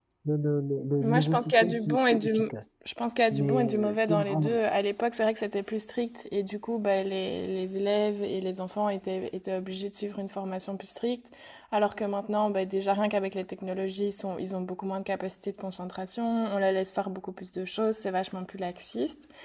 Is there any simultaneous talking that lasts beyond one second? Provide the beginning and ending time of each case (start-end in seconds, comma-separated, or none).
1.0-2.3, 3.3-4.6